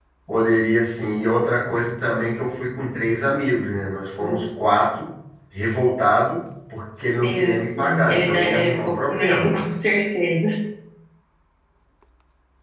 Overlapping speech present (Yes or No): Yes